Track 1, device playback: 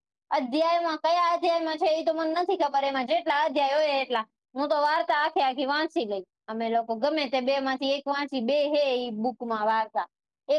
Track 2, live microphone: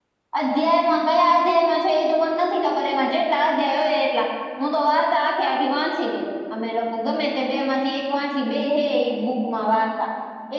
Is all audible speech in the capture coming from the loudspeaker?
Yes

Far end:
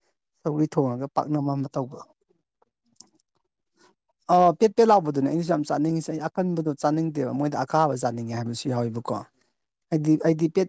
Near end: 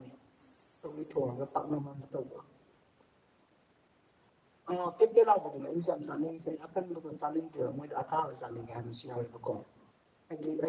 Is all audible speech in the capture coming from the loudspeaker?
Yes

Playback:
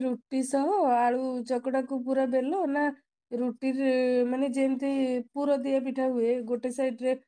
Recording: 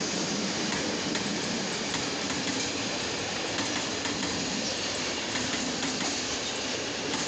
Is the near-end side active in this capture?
No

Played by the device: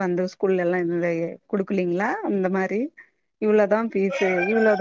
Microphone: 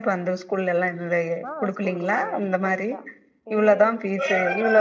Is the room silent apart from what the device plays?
No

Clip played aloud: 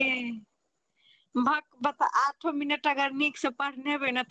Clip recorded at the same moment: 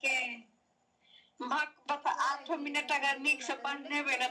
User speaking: Yes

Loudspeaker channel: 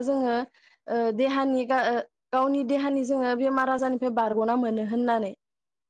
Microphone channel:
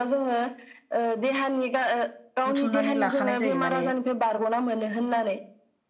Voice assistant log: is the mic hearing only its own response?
No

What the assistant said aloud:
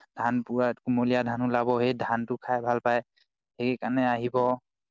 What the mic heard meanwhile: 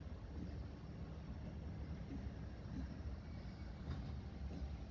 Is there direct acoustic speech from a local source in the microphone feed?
No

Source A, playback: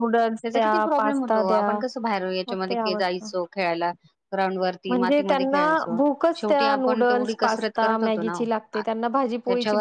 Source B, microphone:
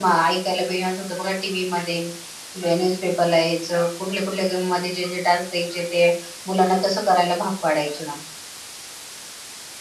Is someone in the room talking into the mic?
Yes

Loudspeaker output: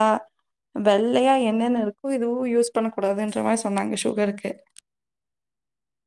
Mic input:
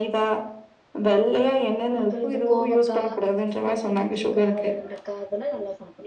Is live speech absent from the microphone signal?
No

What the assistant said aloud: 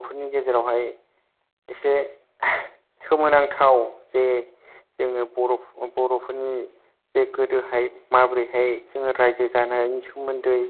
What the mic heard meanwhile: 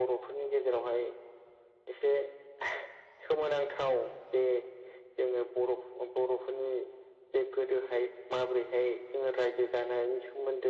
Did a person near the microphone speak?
No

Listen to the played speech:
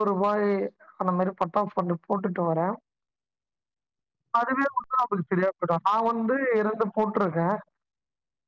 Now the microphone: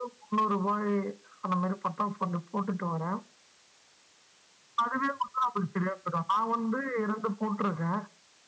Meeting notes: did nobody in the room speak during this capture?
Yes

